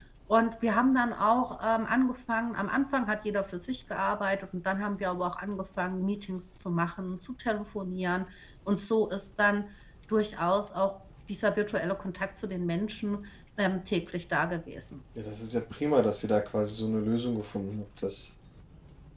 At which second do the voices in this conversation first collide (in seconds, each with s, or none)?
none